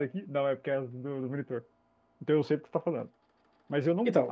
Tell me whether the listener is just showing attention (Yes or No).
Yes